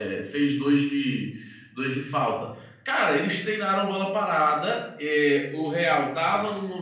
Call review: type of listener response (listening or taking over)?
listening